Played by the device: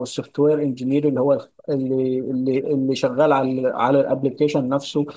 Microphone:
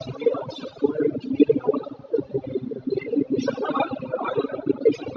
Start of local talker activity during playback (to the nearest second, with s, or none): none